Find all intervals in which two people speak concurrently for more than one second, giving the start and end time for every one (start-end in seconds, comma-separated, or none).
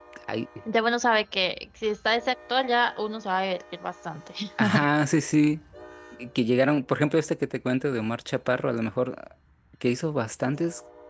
none